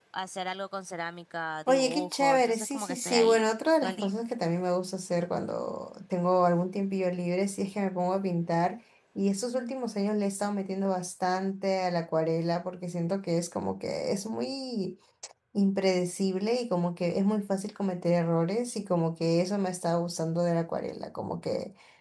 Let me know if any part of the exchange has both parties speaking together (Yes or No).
Yes